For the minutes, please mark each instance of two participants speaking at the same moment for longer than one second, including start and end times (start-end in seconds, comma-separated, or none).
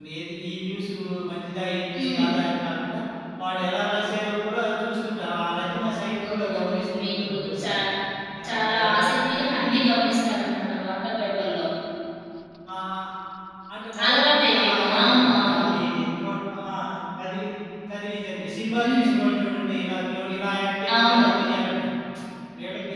6.3-7.7, 8.5-9.8, 14.0-15.7